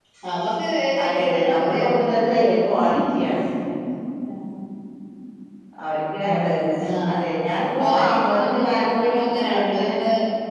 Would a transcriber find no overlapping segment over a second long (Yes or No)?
No